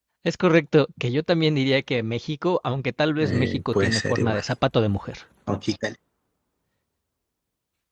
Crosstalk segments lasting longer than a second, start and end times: 3.2-4.4

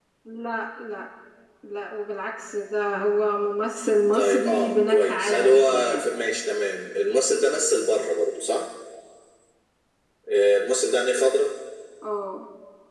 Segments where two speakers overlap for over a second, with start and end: 4.1-6.1

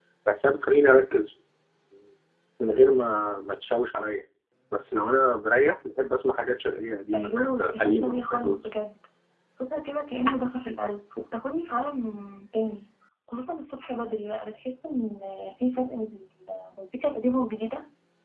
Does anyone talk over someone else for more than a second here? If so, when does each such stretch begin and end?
7.1-8.7

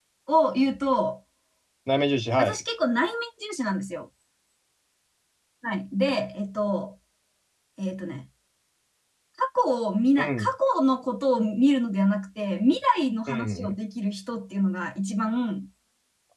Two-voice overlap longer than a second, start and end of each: none

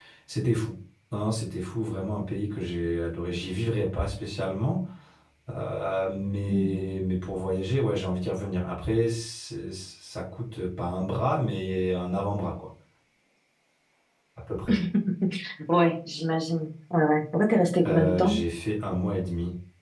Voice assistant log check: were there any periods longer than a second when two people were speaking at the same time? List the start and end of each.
none

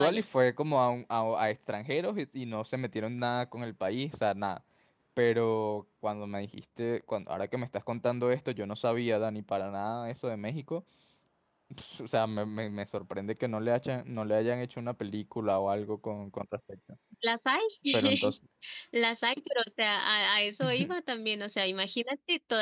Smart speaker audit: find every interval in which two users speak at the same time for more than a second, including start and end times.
none

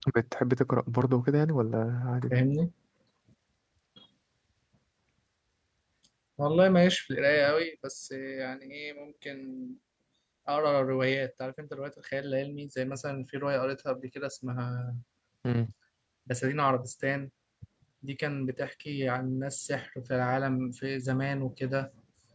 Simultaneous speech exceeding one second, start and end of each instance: none

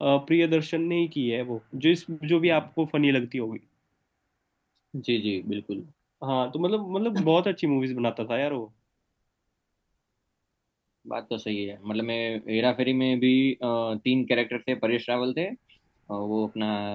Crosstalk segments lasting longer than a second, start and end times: none

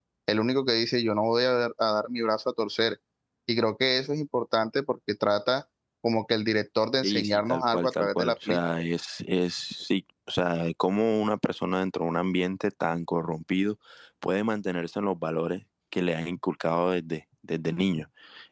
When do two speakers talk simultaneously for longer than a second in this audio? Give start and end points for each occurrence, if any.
7.0-8.6

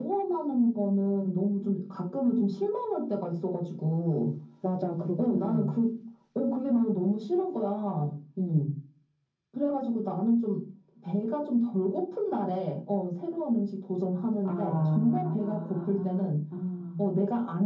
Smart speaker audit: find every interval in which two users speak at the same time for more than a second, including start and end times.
14.4-16.3

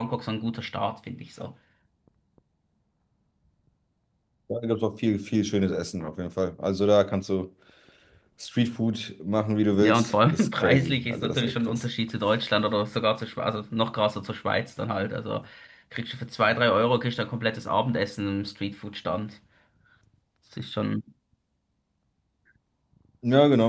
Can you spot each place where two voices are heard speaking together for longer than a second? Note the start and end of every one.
9.8-11.8

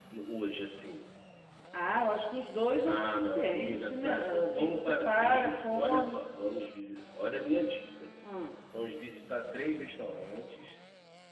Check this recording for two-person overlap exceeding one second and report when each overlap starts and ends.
2.8-6.2

